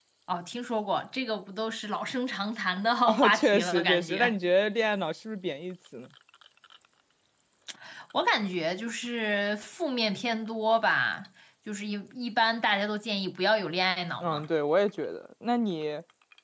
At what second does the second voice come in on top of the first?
3.0 s

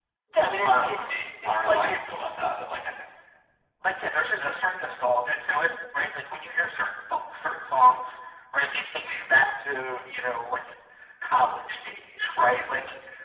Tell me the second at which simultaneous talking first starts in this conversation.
0.7 s

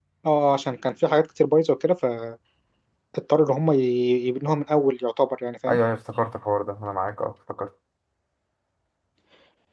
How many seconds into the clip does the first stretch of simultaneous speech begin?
none

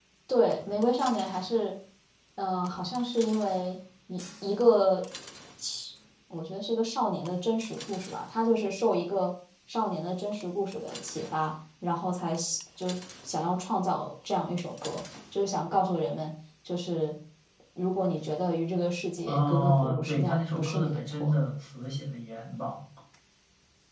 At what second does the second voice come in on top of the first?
19.3 s

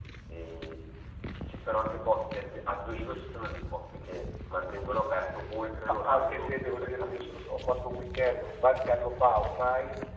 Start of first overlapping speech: 6.1 s

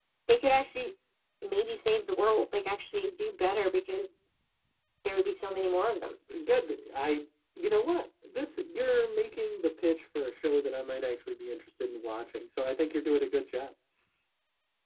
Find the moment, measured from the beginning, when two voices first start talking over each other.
none

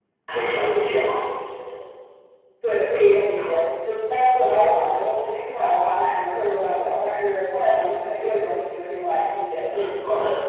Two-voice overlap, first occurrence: none

